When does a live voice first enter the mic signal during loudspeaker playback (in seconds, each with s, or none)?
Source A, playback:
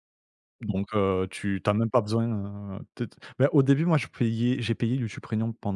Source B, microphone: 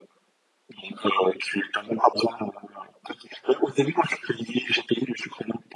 none